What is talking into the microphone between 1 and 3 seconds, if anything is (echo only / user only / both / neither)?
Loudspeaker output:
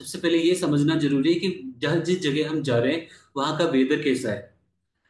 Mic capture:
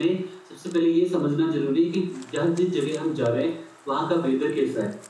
echo only